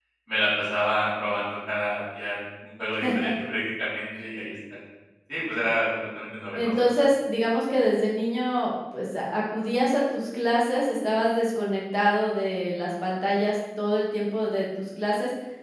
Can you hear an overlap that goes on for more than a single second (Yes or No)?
No